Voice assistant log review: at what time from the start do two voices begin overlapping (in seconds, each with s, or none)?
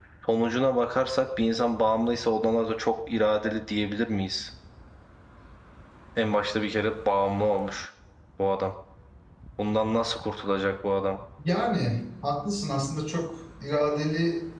none